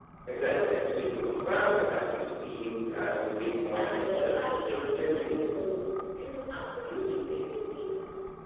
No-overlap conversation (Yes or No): No